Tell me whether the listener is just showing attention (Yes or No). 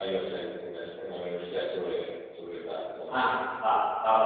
No